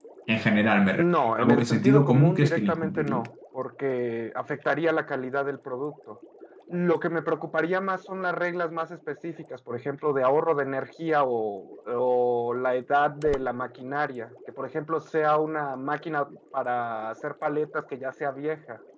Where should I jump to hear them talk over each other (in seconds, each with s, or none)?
1.0 s